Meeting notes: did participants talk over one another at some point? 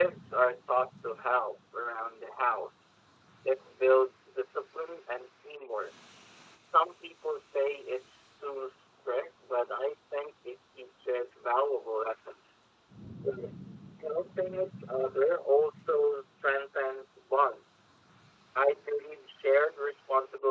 No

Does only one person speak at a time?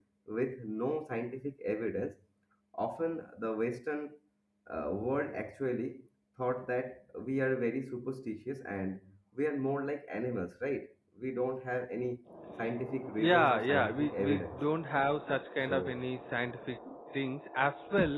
No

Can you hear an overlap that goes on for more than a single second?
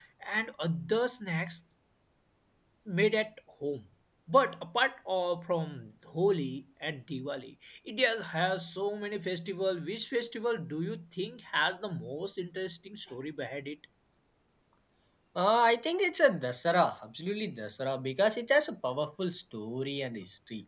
No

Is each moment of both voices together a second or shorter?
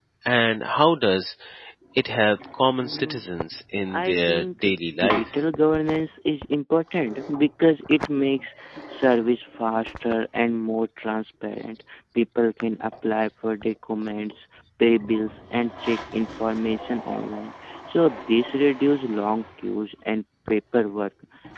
No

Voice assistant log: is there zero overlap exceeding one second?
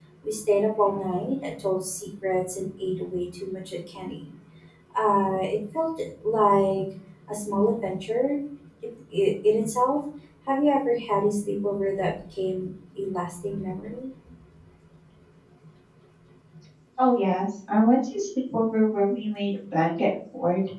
Yes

